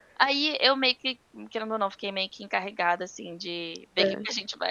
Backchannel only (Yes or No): Yes